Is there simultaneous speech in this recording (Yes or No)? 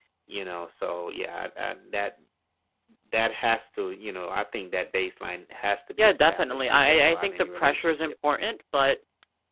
Yes